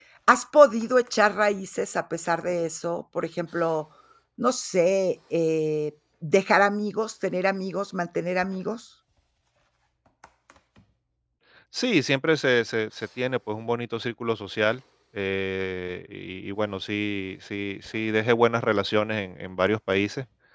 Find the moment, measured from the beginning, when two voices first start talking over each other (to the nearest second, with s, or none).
none